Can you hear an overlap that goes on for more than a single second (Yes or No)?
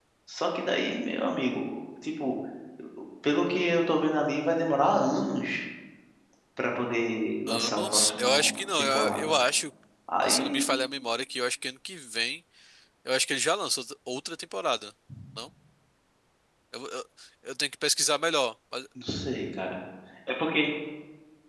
Yes